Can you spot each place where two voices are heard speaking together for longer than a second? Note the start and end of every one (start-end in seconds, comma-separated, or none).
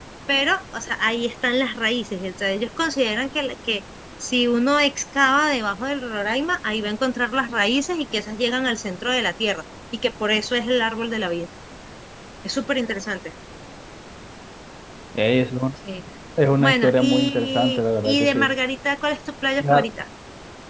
16.6-18.5